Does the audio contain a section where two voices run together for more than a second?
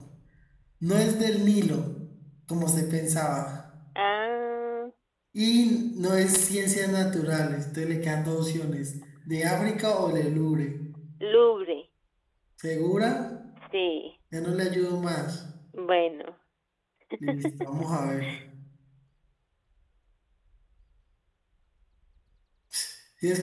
No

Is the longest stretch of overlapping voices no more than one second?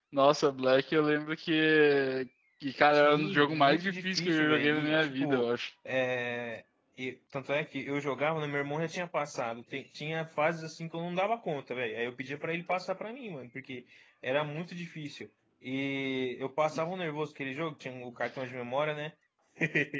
No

